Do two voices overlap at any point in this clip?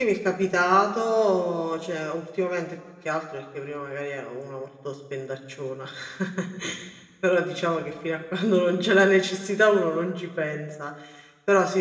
No

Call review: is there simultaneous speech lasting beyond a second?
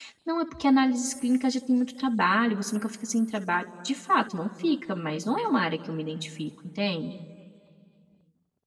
No

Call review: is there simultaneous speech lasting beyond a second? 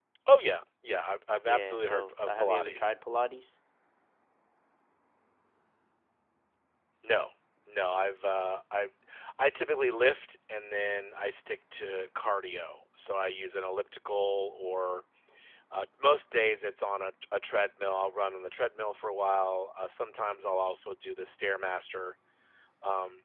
Yes, from 1.5 s

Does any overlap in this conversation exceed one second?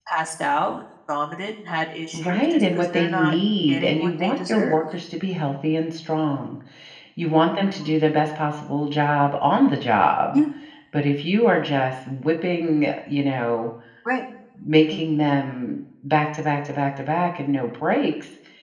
Yes, from 2.1 s

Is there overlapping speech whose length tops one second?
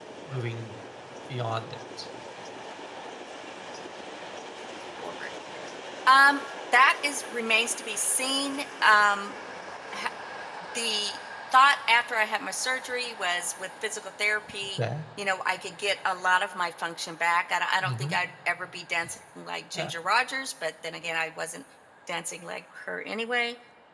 No

